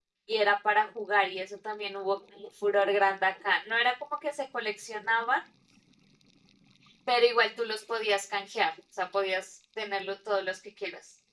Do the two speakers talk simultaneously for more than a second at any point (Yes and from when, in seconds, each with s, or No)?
No